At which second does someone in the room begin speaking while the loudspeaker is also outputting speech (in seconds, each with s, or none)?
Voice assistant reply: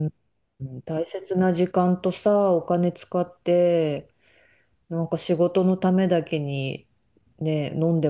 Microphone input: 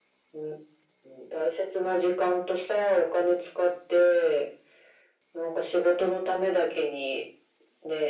none